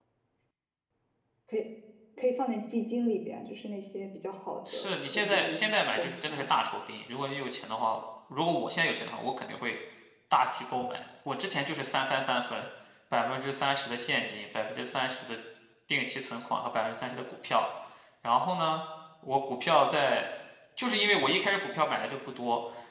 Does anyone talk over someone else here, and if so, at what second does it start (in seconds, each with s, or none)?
4.7 s